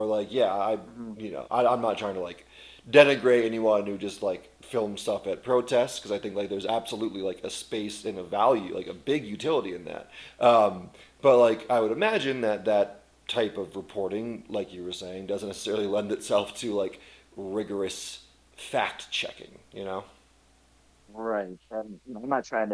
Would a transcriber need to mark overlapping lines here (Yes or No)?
No